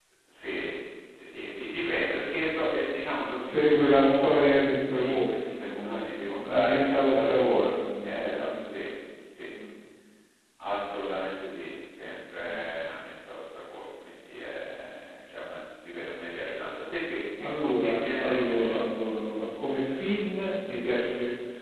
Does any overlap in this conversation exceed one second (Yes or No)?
Yes